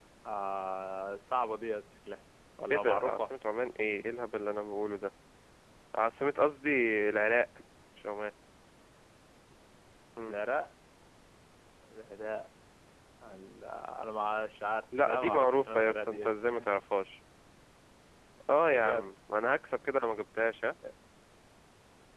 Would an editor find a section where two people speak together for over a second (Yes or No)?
Yes